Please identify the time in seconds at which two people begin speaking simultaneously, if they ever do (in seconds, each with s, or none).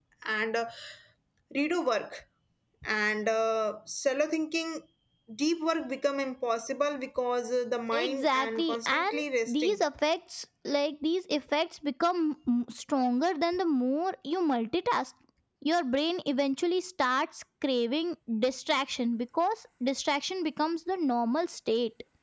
7.9 s